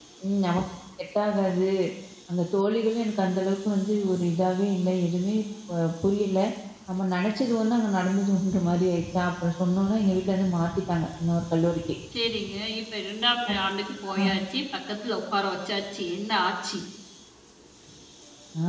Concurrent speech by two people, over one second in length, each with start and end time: none

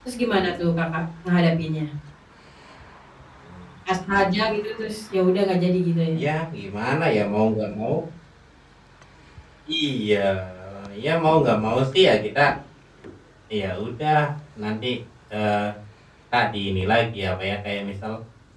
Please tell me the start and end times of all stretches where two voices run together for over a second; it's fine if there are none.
none

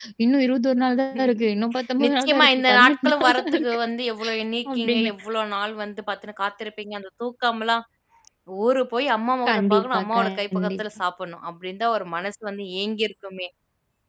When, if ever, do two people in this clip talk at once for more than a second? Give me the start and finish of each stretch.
2.0-3.6, 9.5-10.8

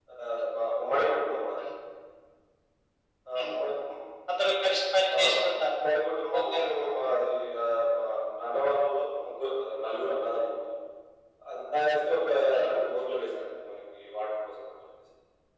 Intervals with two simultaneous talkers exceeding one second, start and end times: none

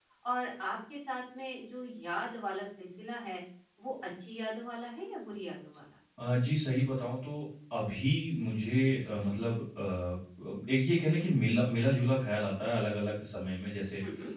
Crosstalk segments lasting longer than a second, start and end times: none

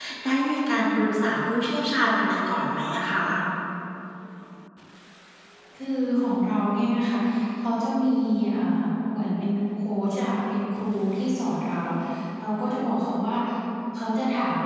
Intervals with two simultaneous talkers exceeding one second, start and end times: none

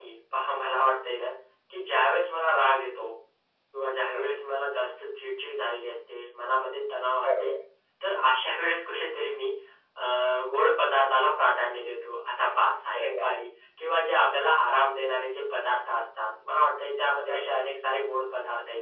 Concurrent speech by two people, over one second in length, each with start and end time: none

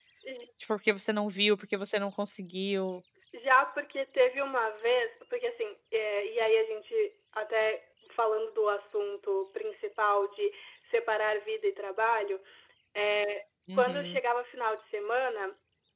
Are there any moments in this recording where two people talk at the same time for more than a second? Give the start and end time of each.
none

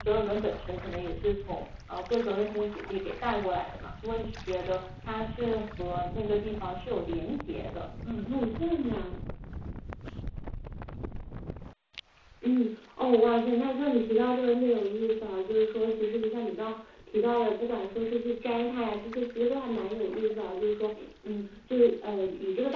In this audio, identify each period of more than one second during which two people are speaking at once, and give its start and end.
none

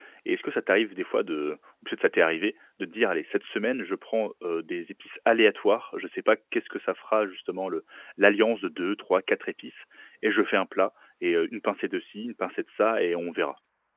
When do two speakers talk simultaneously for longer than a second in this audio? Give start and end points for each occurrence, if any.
none

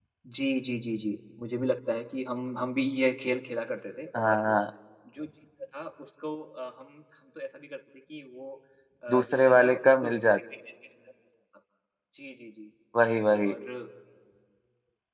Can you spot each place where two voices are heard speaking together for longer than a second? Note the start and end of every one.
9.1-10.4

